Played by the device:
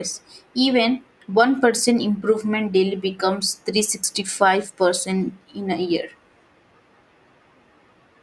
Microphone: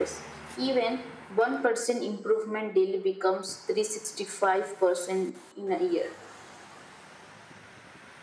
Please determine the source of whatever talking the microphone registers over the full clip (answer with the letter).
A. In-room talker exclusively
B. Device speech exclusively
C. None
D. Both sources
B